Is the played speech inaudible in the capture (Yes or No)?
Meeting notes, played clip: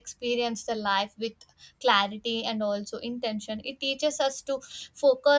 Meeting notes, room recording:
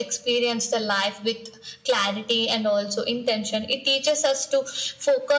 No